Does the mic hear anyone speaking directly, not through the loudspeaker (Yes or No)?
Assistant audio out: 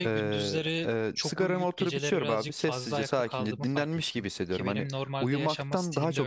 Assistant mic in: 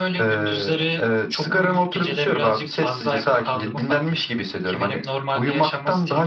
No